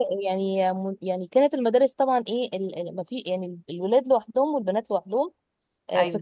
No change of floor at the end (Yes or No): Yes